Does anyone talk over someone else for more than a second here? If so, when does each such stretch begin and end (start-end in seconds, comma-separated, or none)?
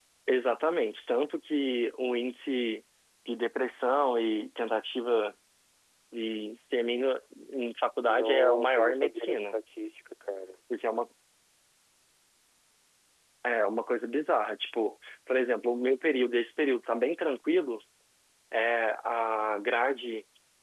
8.1-9.6